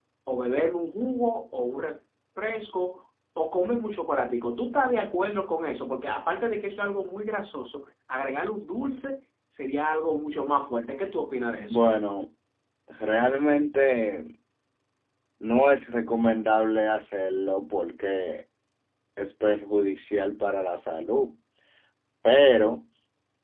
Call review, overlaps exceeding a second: none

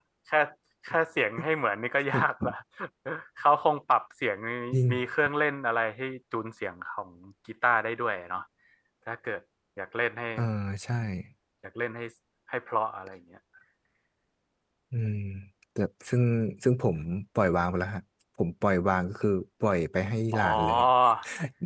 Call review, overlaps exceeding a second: none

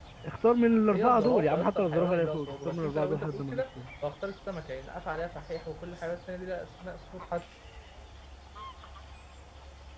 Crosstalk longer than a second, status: present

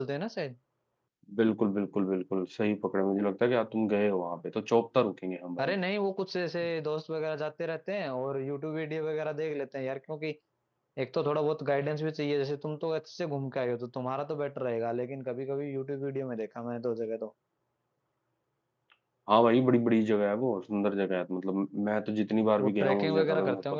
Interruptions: present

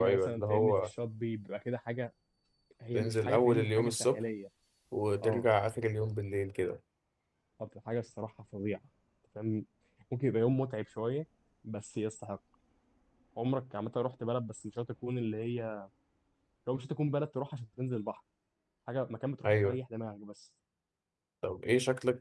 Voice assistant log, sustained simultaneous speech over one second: present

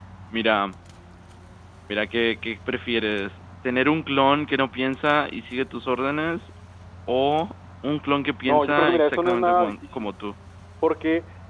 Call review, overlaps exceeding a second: present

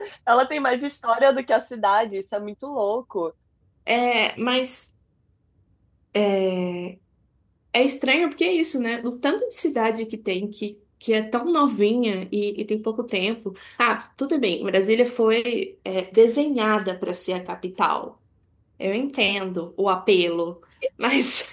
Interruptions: none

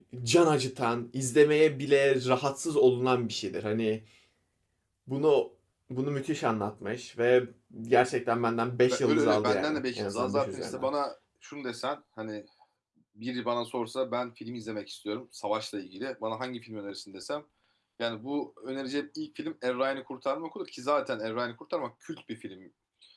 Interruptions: present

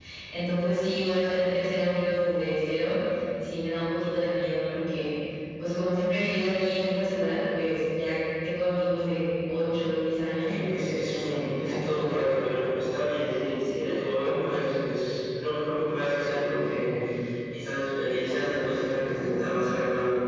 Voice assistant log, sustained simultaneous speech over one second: present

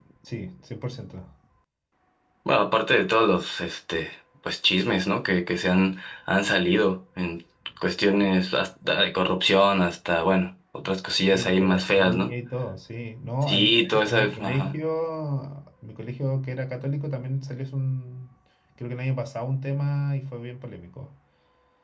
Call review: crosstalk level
present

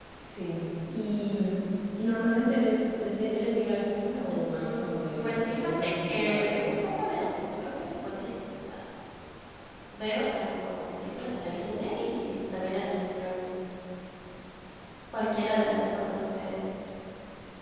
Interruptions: present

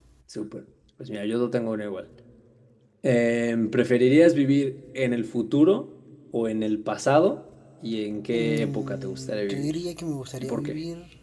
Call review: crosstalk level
present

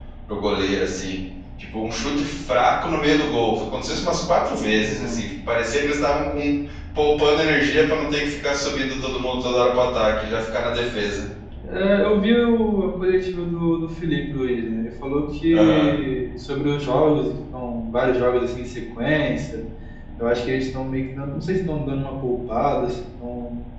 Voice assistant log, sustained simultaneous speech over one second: none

